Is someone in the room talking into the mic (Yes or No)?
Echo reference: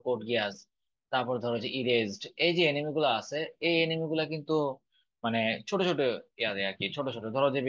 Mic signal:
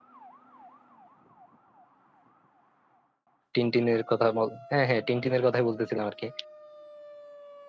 Yes